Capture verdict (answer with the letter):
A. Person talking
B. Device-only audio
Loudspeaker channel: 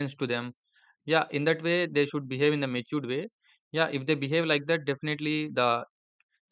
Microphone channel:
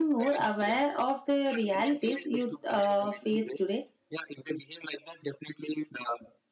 A